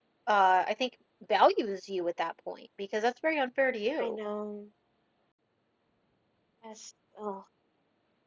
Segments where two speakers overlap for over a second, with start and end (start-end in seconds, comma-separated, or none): none